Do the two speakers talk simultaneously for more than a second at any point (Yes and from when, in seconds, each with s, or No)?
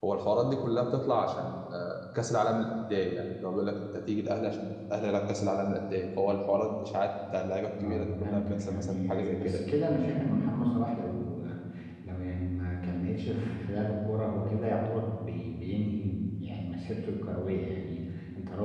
Yes, from 7.8 s